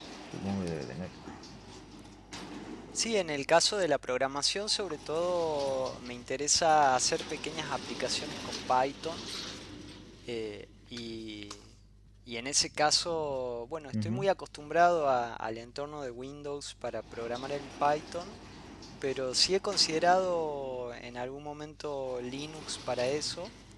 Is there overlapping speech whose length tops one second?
No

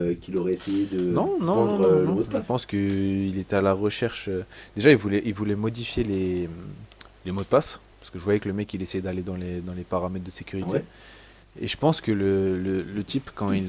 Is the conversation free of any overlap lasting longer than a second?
No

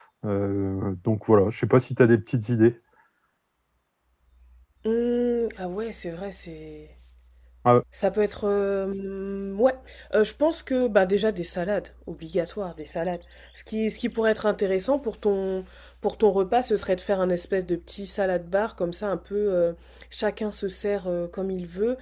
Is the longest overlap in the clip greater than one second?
No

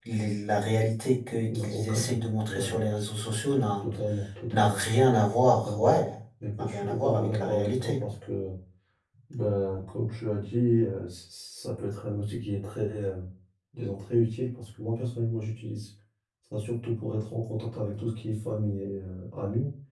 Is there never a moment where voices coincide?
No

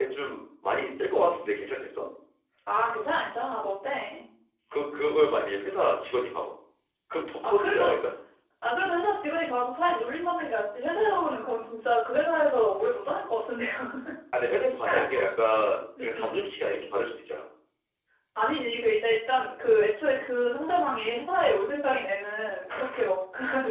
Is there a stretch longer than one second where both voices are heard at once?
No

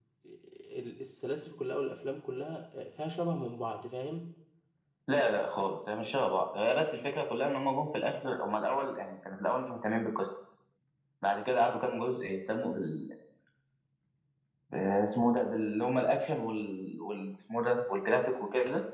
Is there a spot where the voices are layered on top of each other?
No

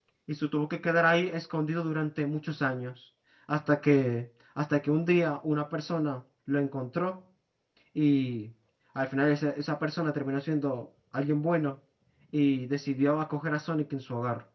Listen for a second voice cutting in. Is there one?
No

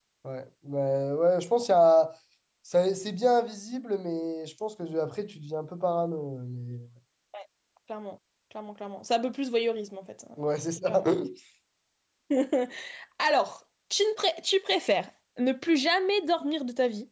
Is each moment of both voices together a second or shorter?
Yes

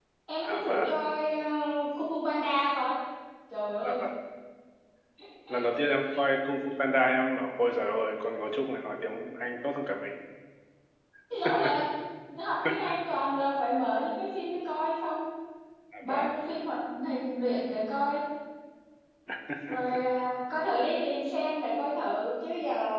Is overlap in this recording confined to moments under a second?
Yes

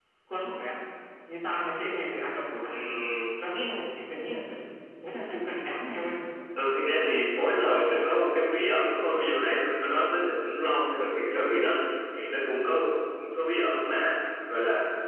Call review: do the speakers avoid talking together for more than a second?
Yes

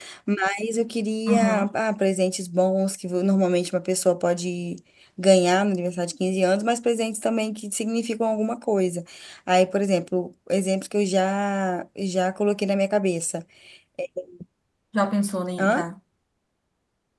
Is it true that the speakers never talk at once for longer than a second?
Yes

